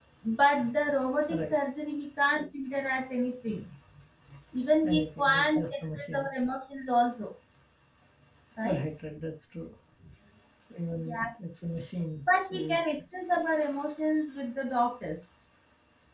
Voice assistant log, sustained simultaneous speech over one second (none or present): present